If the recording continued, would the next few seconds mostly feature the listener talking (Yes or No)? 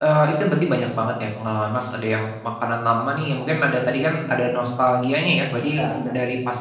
No